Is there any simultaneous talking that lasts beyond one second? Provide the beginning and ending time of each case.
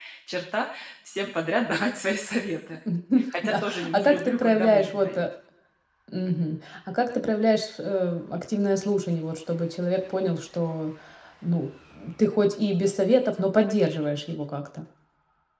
3.4-5.1

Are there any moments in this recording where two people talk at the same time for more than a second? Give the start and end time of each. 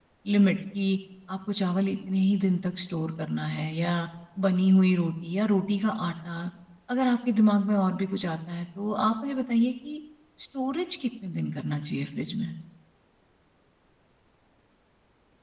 none

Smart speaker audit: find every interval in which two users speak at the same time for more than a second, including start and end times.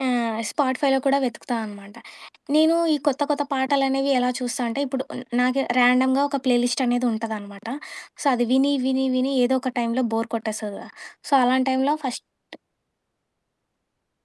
none

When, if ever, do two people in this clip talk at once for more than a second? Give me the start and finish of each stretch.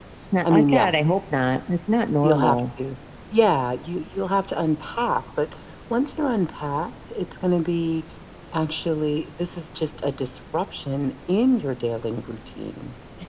none

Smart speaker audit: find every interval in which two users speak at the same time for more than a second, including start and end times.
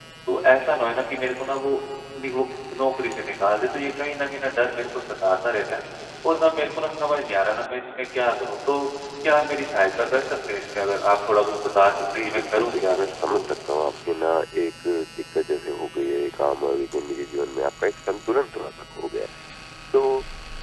12.1-13.4

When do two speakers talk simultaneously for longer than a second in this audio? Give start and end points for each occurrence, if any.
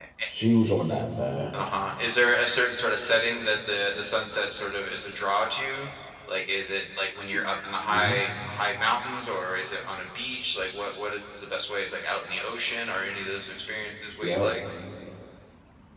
none

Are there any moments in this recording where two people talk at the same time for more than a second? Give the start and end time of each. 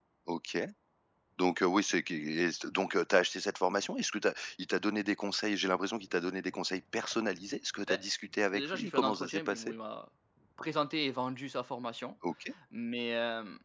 8.5-9.7

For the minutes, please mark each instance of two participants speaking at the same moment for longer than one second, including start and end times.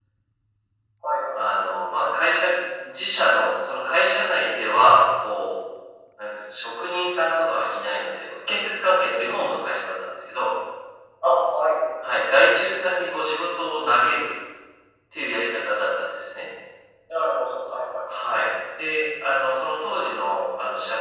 none

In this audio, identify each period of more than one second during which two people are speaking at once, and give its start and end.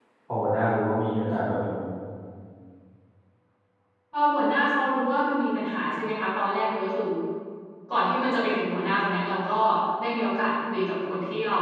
none

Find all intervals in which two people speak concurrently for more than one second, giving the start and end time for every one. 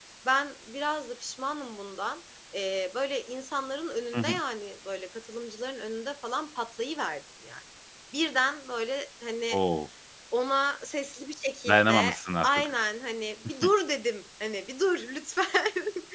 none

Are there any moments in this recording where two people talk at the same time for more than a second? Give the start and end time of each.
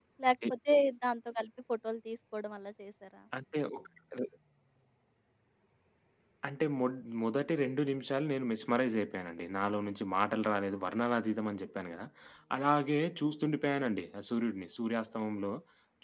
none

